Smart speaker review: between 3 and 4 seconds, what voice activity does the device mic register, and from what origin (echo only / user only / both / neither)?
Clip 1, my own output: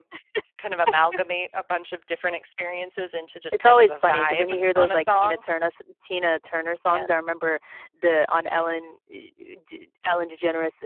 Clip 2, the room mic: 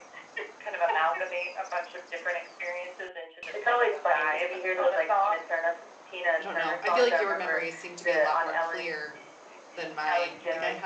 echo only